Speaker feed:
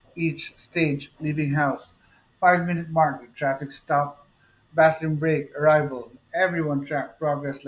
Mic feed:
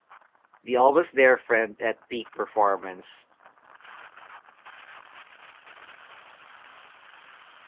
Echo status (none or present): none